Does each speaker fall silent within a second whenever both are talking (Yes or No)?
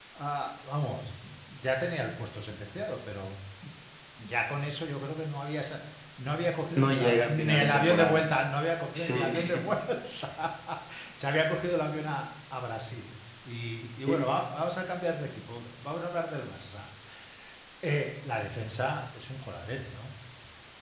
No